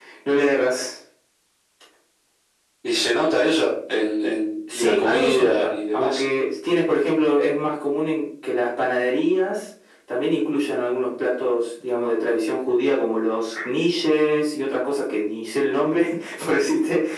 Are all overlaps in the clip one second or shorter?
No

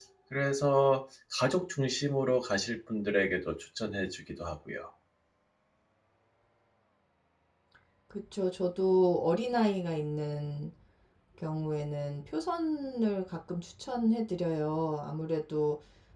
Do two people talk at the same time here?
No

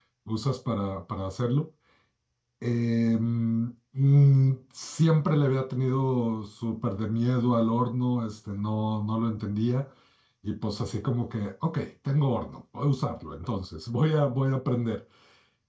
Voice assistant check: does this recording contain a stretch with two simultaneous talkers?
No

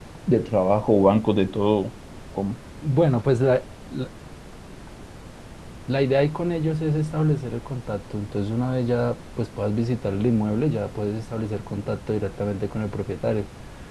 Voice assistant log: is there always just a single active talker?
Yes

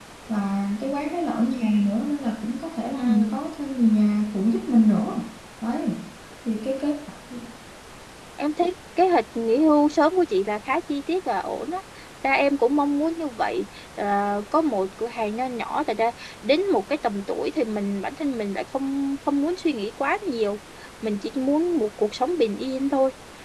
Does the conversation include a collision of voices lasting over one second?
No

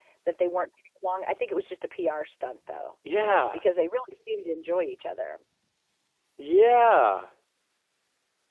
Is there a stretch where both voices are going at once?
No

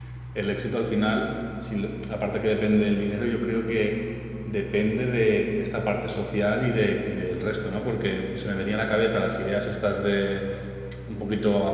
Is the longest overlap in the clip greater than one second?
No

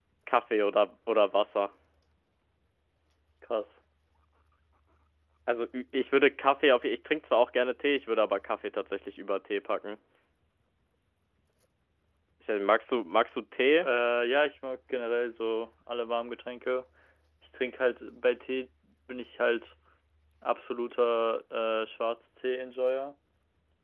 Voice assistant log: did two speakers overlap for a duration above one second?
No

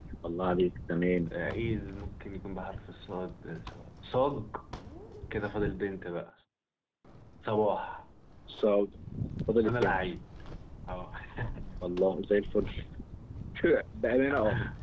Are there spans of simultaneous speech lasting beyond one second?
No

